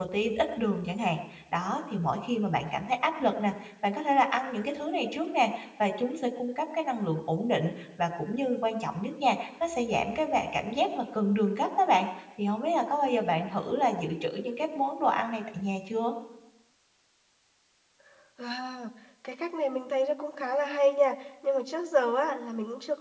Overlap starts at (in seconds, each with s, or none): none